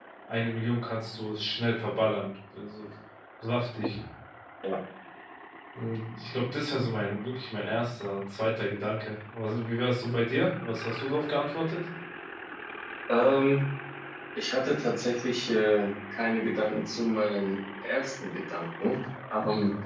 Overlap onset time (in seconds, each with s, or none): none